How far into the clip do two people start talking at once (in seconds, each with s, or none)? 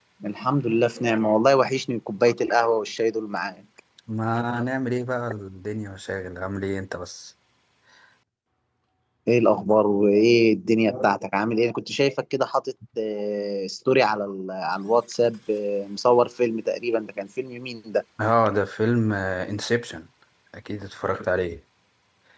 none